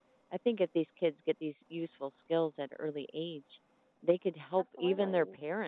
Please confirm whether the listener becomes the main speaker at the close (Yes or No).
No